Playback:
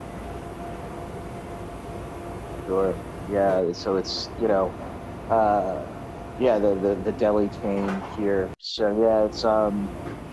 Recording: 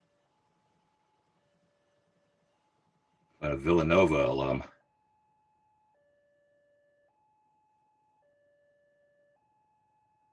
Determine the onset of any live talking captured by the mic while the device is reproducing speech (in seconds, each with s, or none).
3.4 s